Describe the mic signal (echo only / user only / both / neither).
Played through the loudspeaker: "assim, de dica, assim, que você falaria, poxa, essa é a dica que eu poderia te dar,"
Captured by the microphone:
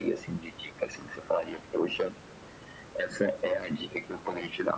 echo only